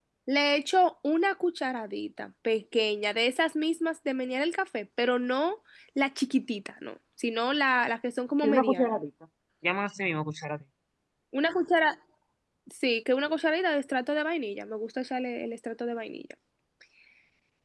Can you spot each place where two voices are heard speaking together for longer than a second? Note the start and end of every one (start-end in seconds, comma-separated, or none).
none